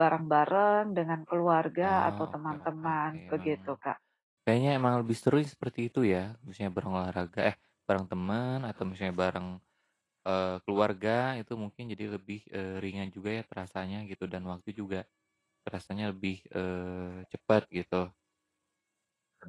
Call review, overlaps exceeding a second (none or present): present